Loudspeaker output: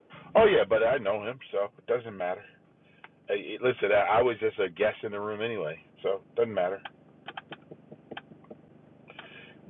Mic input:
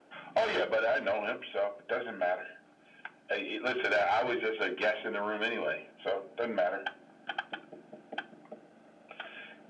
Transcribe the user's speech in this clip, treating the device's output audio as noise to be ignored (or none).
none